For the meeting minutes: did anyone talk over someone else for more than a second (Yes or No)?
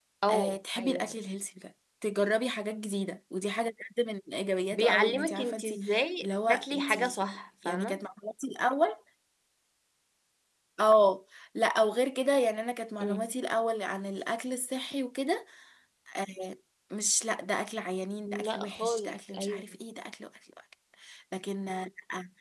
Yes